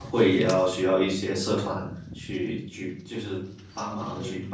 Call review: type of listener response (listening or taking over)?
taking over